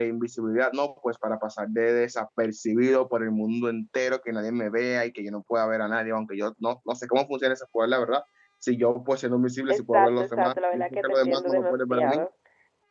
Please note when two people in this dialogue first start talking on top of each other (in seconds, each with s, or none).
9.7 s